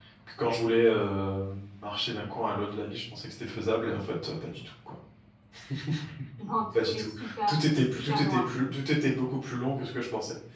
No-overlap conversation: No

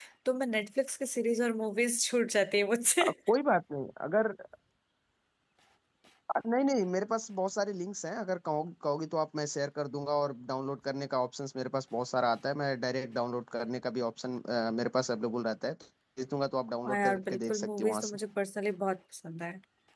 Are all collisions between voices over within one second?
No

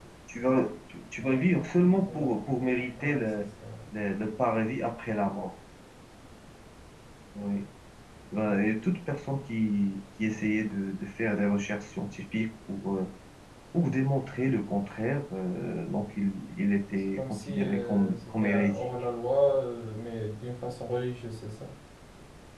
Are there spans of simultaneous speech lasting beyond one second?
Yes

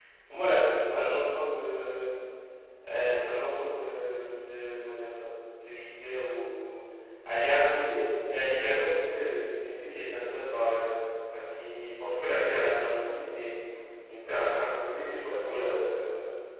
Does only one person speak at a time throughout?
No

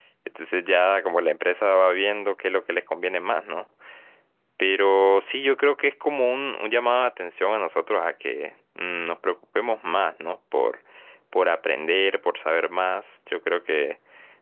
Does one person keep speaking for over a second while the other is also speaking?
No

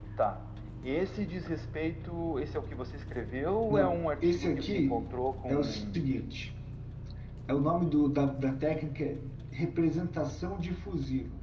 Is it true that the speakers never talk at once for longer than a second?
No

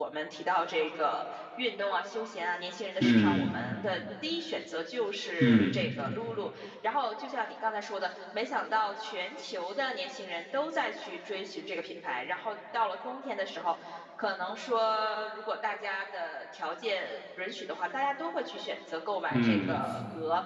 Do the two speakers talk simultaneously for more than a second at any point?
No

